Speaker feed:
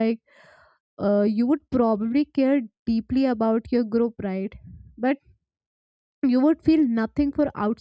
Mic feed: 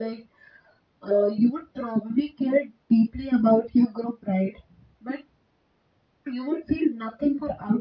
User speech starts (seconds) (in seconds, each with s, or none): none